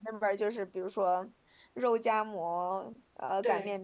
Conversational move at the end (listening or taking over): listening